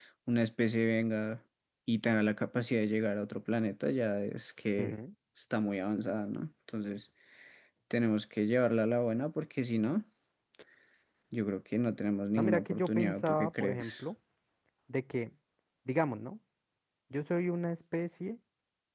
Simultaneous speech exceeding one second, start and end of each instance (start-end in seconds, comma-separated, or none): 12.3-14.0